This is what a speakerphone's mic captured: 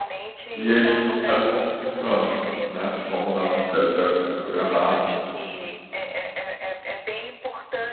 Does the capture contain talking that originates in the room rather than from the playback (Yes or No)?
Yes